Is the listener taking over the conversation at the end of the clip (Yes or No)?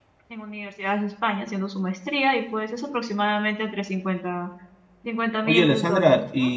Yes